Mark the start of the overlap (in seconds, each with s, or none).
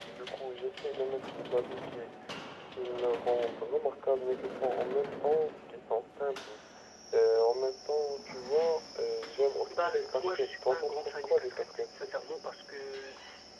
9.7 s